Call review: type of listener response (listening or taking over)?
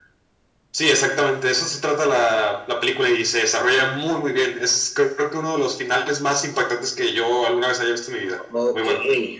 taking over